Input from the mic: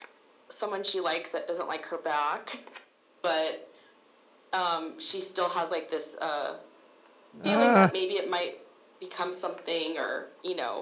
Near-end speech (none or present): present